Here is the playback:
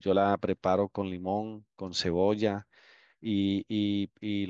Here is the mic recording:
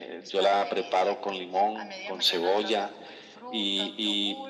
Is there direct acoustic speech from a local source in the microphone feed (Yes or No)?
Yes